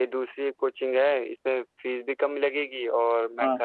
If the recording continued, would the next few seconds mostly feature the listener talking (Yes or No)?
No